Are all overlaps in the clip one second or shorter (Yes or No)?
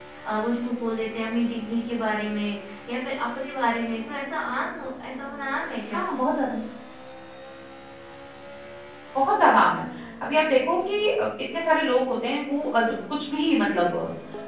Yes